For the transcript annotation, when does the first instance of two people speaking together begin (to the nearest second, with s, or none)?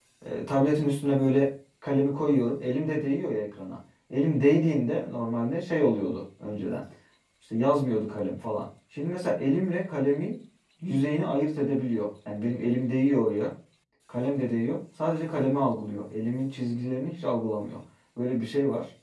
none